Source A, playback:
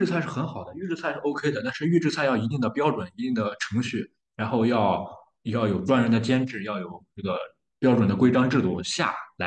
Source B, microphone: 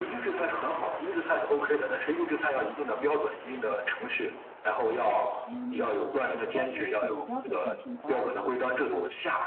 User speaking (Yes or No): Yes